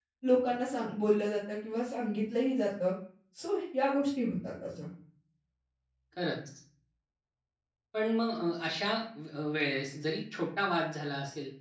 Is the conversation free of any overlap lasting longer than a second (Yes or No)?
Yes